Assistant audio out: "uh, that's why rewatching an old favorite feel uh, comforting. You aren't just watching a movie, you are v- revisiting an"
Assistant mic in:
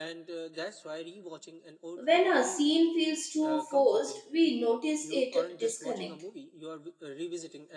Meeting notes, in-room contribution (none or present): present